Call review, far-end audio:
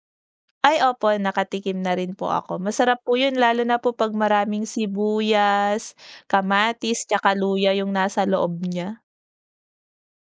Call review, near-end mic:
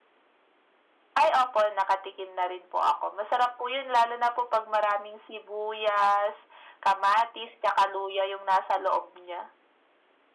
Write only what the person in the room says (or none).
none